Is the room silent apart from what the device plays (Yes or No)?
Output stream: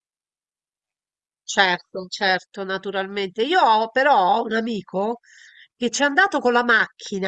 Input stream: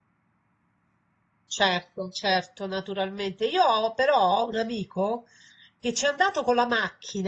Yes